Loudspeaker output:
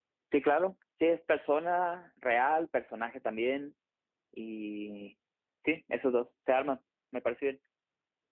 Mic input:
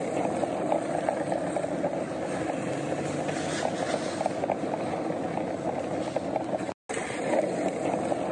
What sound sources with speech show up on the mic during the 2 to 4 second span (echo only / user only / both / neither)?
neither